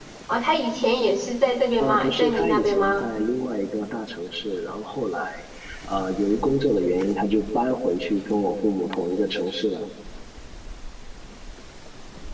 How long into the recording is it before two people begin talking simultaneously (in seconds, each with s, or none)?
1.8 s